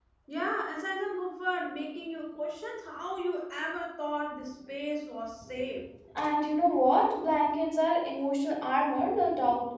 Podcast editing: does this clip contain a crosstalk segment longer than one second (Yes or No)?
No